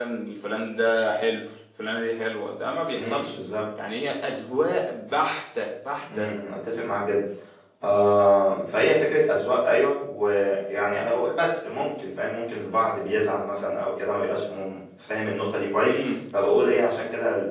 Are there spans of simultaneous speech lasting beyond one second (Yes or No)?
No